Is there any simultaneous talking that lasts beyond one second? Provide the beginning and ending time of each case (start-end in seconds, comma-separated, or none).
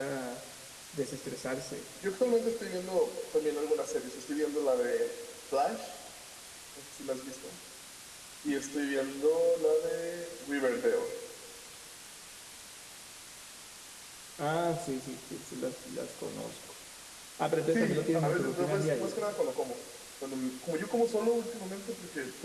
17.7-19.2